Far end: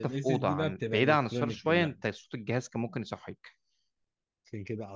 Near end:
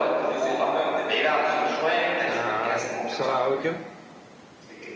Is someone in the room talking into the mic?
Yes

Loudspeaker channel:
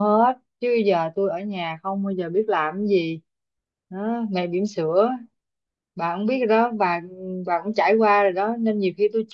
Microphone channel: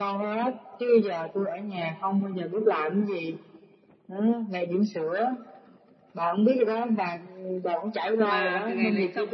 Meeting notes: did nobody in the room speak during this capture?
No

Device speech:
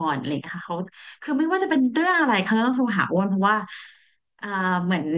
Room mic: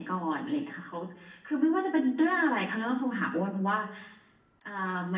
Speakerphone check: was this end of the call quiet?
Yes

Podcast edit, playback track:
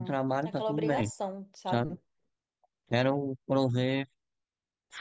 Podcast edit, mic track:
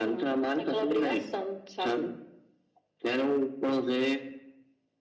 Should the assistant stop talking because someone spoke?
No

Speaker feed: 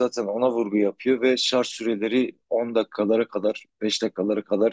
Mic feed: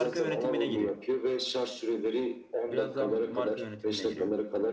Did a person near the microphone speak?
Yes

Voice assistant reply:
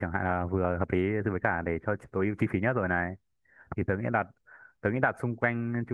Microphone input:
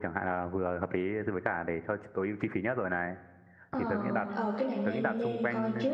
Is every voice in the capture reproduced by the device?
No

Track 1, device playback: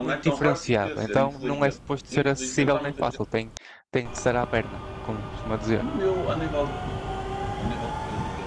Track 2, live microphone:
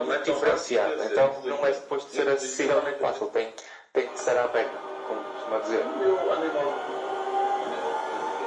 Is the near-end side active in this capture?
No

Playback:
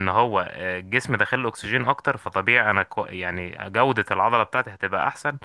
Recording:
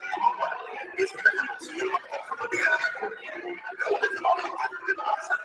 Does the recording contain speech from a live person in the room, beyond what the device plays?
No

